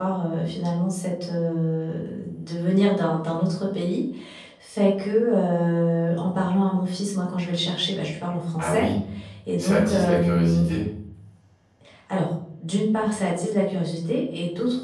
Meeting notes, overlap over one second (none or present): present